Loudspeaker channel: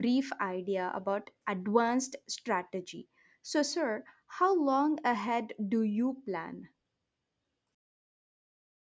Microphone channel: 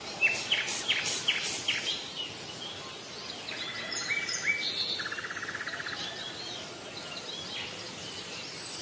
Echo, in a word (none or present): none